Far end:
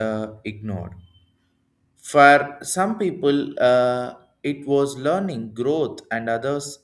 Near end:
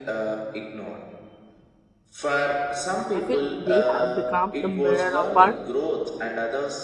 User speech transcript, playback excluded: I feel they have become the mirror of our

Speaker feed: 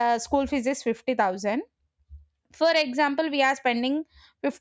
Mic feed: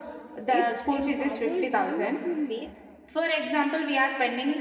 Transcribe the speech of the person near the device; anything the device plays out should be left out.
it empowers them to make

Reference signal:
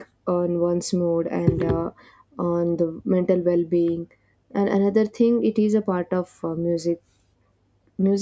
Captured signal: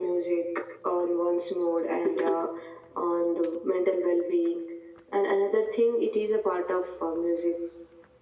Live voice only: none

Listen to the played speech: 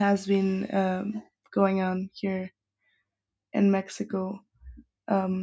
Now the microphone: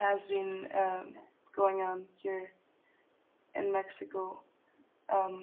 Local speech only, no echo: none

